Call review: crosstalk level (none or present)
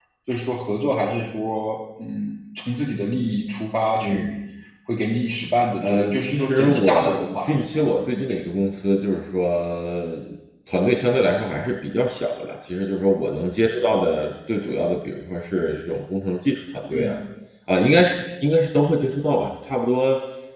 present